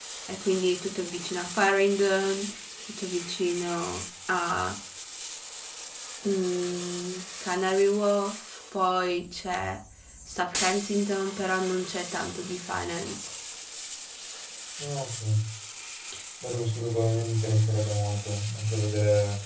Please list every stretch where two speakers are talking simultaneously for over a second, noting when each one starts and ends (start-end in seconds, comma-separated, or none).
none